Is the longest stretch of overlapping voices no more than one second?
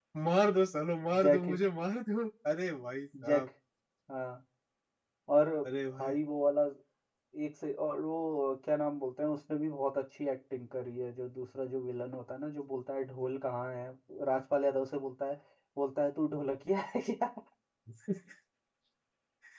Yes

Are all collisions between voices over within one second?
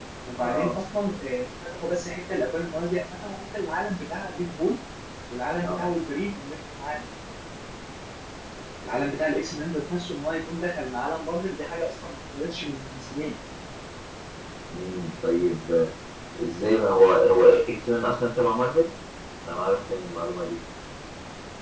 Yes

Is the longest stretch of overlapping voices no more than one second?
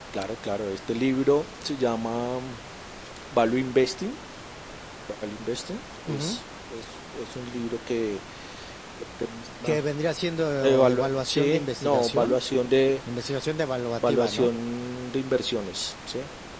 No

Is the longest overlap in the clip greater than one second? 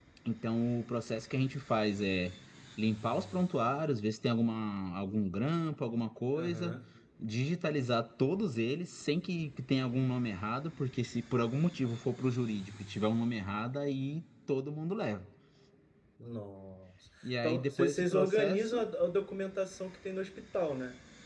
Yes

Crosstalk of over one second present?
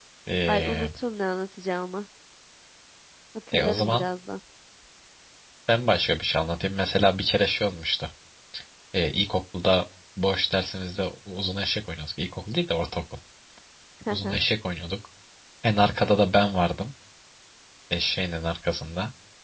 No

